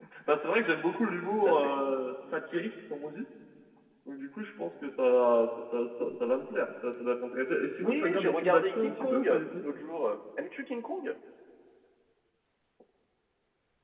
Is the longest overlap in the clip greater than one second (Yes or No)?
Yes